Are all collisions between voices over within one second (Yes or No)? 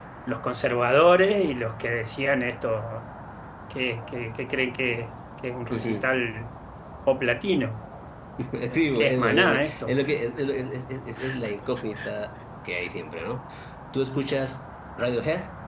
No